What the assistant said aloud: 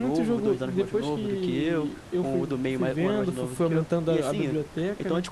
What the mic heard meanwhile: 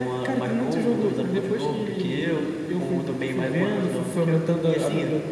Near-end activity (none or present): none